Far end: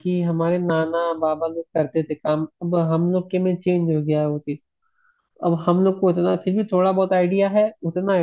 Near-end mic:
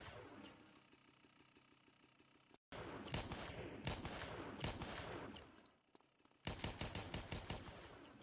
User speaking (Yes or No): No